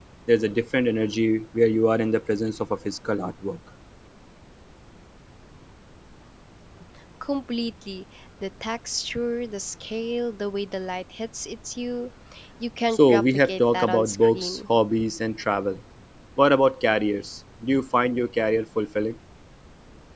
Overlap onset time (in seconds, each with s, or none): 12.9 s